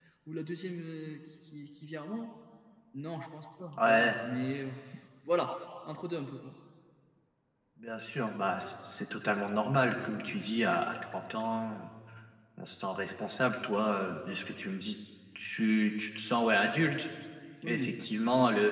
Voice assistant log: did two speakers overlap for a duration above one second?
No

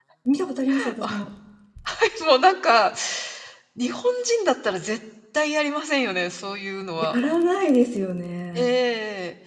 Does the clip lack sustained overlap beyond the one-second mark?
Yes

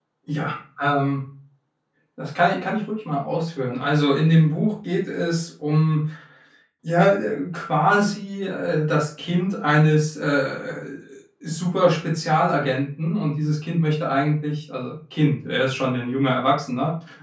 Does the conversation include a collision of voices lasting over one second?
No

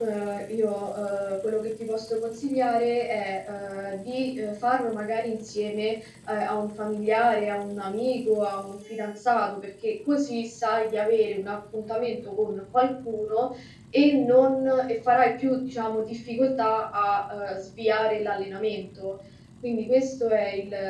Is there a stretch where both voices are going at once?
No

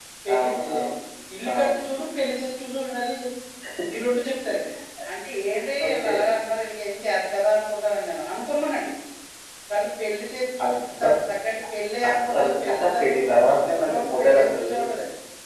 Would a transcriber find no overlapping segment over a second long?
No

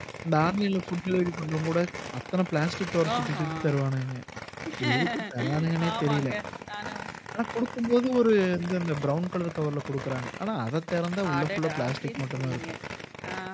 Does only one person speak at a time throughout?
No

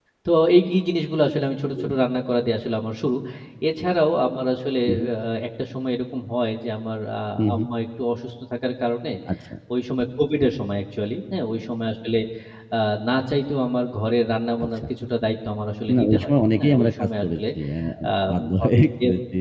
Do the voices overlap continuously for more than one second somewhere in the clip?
Yes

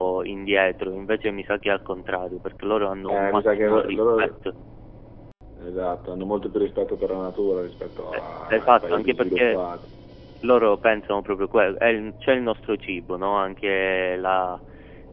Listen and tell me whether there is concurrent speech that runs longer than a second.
Yes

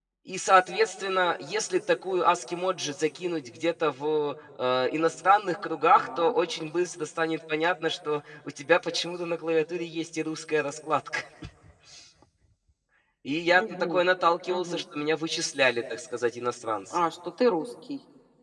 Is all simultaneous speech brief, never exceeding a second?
Yes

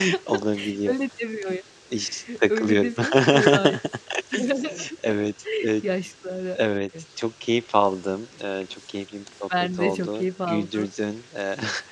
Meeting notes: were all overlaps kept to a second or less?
No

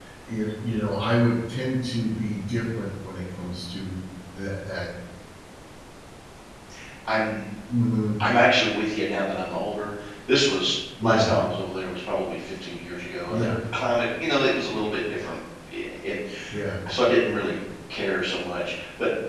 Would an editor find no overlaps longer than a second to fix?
Yes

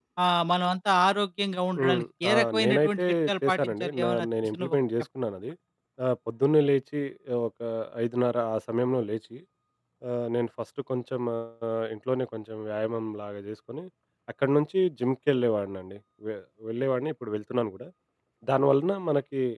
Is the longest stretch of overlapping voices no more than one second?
No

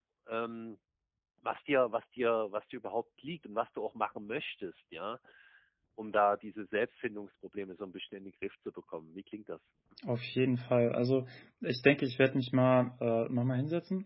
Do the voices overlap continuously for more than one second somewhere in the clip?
No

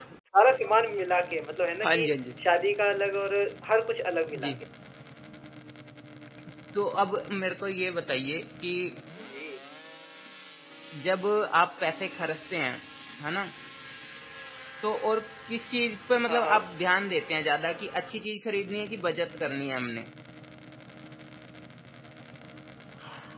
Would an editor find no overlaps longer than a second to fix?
Yes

